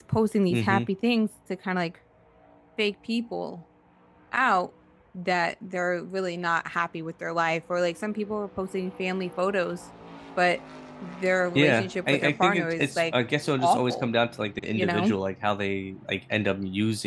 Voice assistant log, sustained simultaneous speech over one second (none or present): present